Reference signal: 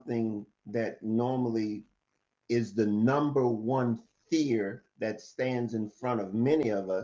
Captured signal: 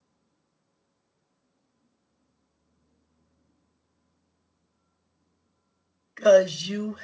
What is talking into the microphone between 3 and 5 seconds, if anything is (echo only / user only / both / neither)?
neither